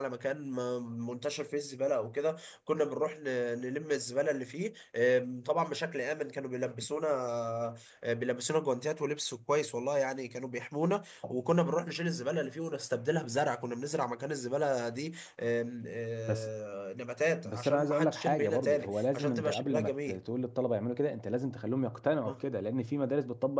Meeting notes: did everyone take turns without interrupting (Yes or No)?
No